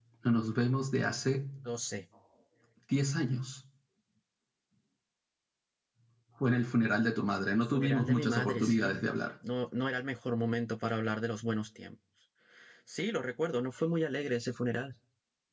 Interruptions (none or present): present